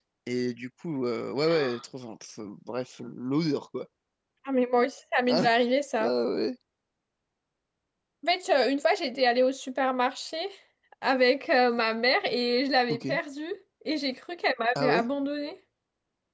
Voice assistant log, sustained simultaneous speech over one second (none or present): none